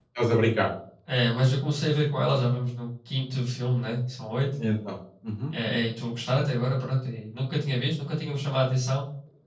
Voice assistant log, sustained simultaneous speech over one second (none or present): none